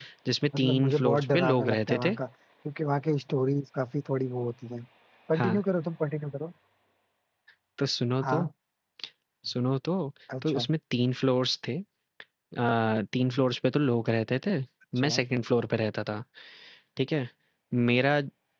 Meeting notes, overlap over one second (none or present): present